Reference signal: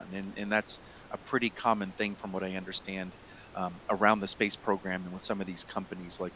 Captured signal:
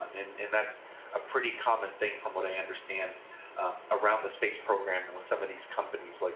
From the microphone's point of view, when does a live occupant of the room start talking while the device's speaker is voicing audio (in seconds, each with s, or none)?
none